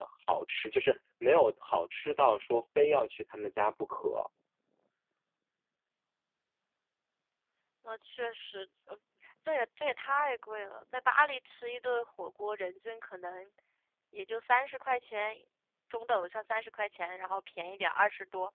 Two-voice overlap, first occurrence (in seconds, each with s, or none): none